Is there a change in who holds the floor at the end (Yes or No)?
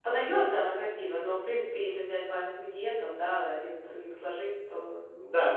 Yes